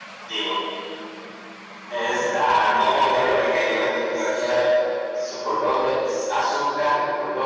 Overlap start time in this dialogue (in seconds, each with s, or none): 2.7 s